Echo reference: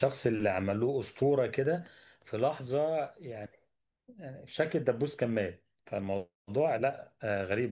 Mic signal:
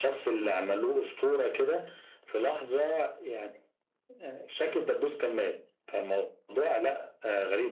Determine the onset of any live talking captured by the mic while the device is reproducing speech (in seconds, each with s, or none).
none